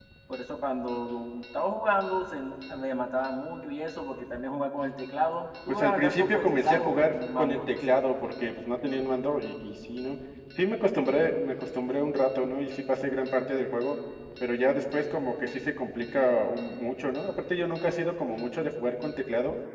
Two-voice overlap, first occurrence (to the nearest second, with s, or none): 6 s